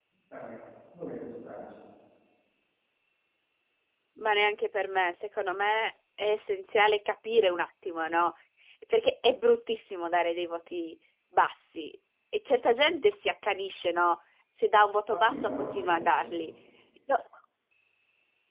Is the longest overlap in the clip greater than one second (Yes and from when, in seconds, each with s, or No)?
Yes, from 15.1 s